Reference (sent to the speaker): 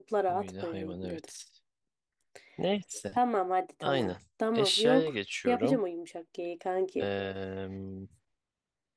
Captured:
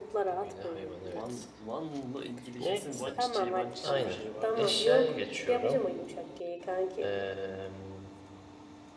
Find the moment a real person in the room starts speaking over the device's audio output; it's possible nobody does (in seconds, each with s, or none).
1.1 s